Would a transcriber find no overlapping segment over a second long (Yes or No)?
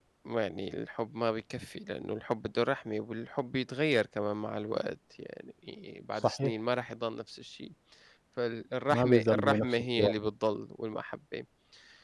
No